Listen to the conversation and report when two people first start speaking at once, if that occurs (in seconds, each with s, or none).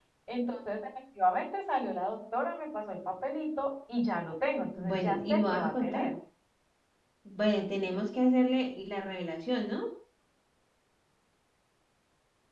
4.8 s